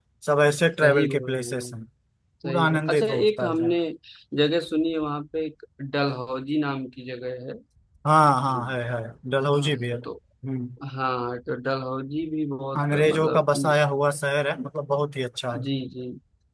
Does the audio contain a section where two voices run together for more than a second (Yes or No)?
Yes